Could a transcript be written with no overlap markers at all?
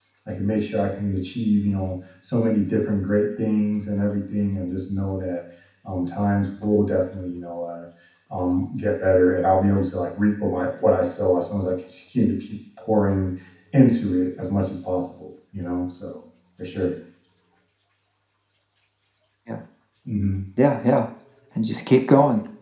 Yes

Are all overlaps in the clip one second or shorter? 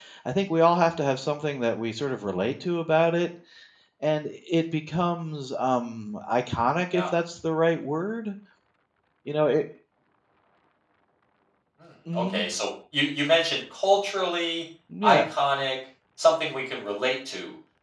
Yes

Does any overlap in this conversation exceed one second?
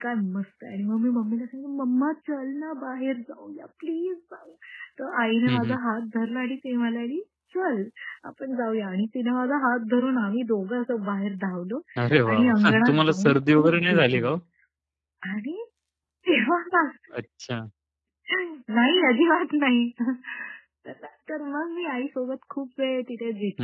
Yes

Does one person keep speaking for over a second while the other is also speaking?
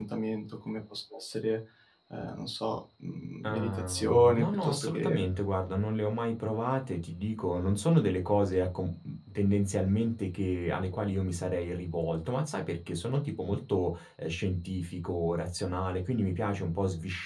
Yes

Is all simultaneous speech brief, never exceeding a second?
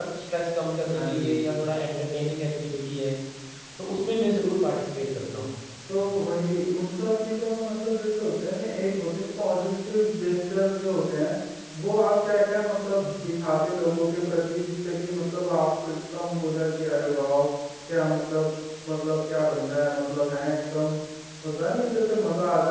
Yes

